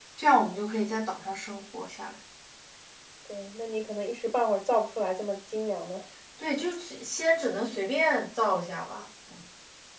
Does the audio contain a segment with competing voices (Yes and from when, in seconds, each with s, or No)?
No